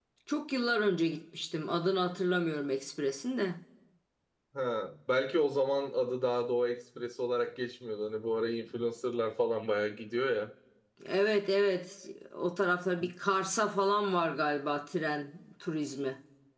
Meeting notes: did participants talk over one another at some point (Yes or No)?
No